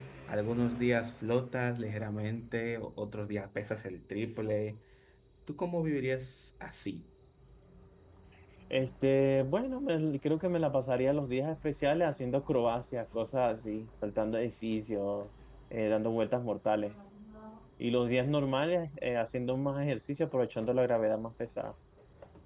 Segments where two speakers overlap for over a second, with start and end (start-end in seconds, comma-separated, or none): none